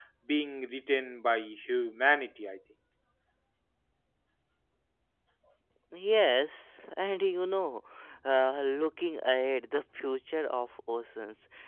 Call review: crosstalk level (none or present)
none